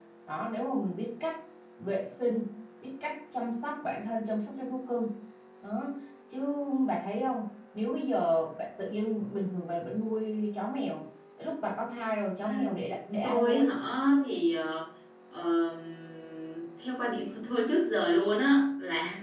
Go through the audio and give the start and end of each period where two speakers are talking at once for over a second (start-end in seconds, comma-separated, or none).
none